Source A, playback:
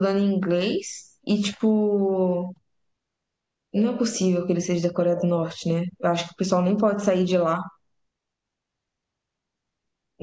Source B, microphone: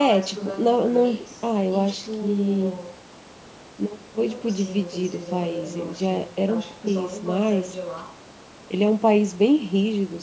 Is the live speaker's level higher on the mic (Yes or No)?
Yes